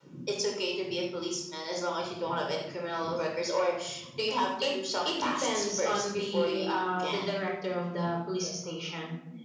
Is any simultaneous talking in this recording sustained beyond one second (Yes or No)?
Yes